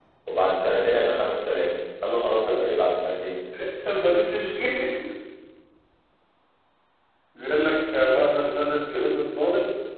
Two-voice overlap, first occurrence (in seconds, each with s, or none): none